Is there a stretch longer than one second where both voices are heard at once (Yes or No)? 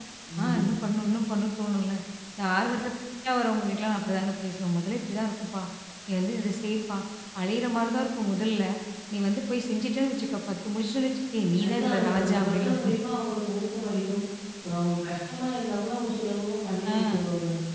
Yes